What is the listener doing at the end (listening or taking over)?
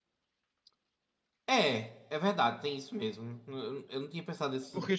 taking over